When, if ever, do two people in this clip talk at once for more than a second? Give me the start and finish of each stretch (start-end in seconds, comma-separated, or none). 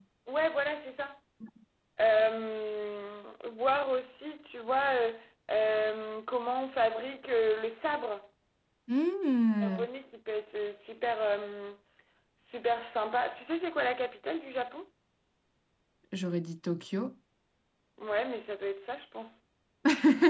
none